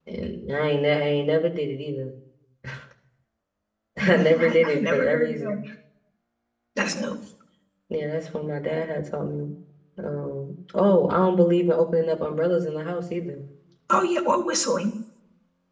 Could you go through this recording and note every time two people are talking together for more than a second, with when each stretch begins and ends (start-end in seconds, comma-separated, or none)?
4.0-5.6